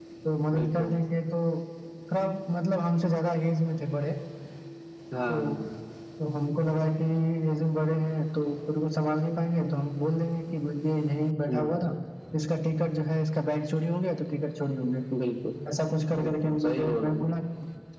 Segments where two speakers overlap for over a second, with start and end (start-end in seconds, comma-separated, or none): 16.2-17.4